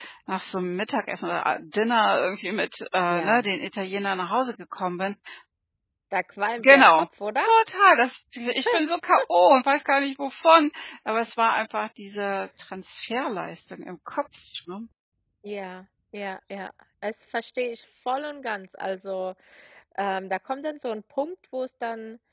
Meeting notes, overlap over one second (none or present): none